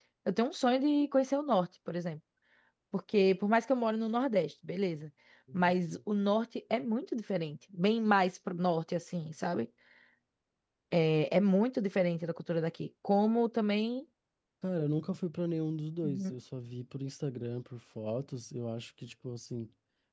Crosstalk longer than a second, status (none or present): none